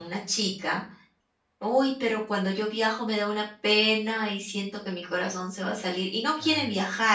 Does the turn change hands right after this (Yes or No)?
No